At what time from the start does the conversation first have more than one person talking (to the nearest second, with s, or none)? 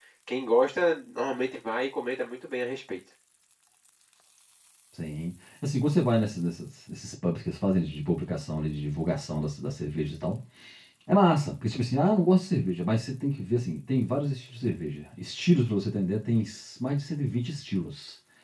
none